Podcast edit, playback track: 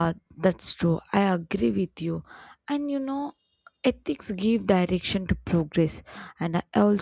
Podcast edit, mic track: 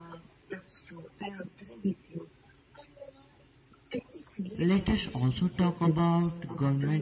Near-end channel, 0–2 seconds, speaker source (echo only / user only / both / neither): echo only